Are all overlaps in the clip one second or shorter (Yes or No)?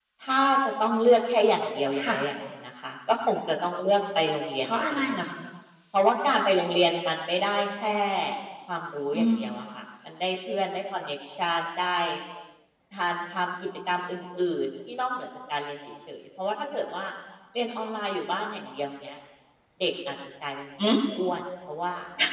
Yes